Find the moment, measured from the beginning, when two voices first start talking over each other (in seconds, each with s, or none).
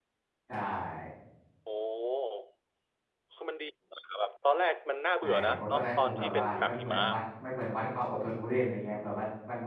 5.2 s